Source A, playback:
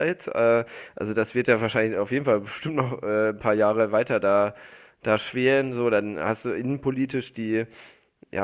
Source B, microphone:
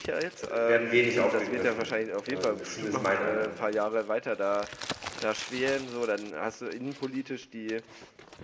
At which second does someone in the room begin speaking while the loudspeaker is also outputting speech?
0.5 s

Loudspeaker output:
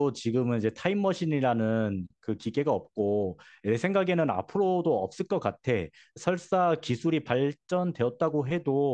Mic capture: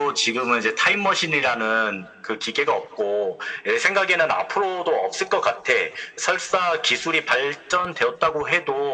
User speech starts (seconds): none

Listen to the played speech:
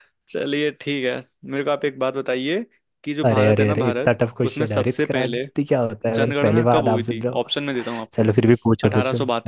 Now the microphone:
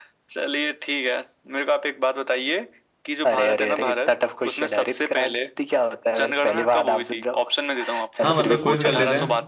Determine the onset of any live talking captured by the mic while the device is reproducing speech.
8.2 s

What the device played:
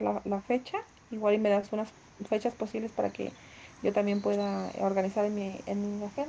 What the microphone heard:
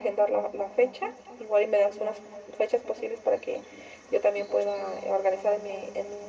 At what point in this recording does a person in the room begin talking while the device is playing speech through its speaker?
none

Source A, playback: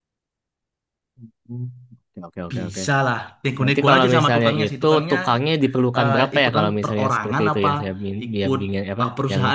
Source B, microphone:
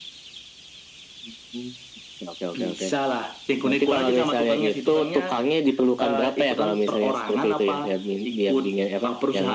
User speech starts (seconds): none

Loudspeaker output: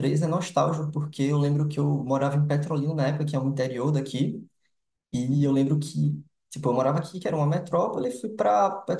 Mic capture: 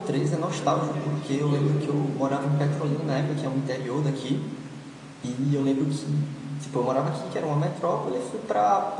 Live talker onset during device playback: 0.6 s

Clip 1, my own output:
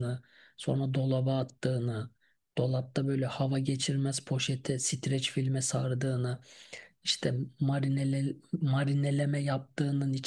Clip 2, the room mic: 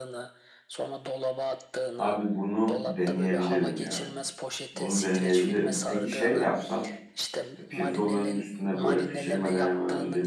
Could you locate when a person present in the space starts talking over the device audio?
1.9 s

